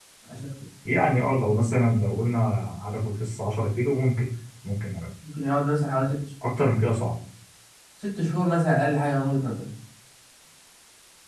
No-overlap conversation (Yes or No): Yes